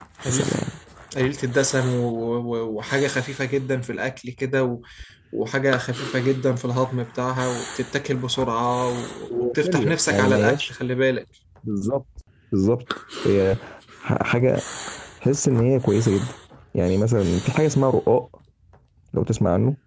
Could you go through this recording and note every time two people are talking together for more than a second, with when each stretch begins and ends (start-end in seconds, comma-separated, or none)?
9.3-10.7